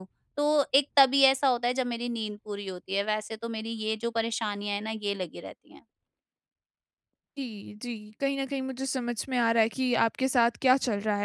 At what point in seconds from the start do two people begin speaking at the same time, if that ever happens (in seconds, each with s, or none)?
none